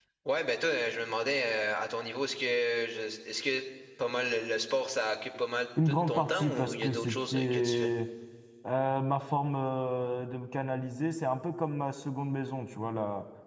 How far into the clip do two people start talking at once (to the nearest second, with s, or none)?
6 s